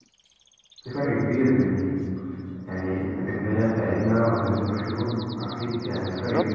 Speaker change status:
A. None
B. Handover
B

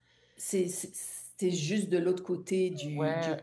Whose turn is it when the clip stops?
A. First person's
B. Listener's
B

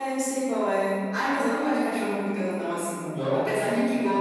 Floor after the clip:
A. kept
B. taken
A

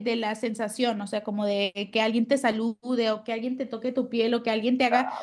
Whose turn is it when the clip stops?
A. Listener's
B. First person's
B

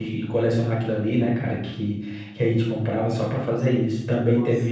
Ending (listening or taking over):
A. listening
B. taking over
A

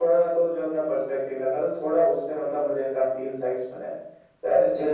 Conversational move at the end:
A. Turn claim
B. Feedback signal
A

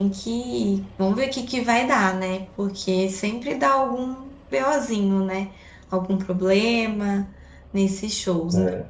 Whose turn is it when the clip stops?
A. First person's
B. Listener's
A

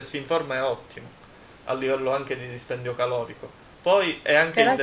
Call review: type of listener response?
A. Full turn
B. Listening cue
B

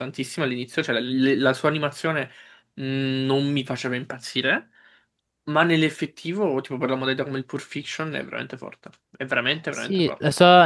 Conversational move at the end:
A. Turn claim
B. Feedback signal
A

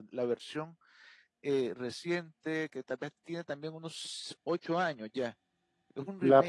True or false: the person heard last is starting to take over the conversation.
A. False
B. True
B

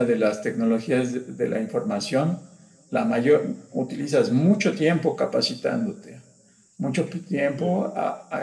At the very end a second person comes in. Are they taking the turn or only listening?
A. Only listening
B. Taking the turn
A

